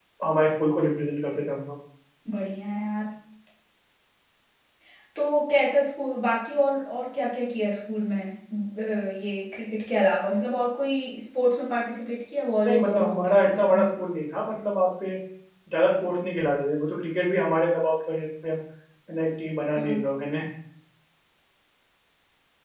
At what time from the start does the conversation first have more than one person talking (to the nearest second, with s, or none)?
13 s